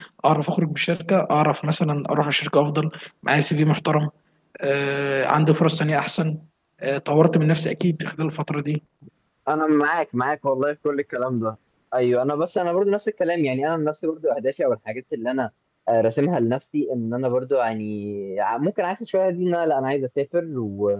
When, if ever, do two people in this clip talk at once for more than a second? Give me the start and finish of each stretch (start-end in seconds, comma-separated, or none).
none